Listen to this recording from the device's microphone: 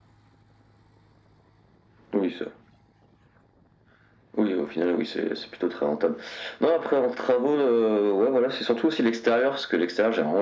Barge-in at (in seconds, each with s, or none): none